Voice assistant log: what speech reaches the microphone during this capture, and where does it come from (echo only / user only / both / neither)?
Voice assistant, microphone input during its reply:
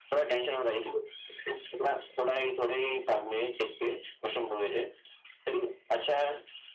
echo only